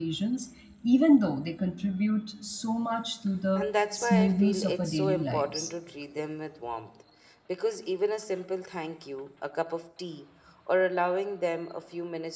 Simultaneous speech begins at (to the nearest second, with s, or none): 4 s